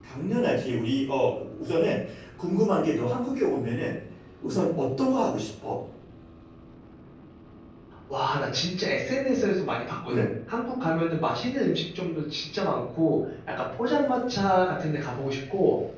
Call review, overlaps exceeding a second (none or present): none